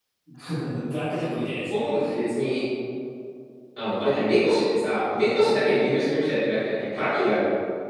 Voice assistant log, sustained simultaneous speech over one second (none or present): none